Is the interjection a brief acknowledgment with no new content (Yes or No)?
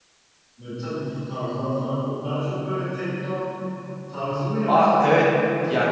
No